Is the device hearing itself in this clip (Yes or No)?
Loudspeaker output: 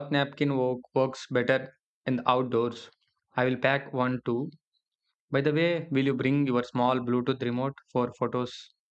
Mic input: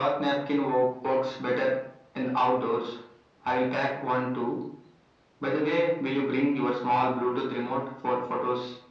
Yes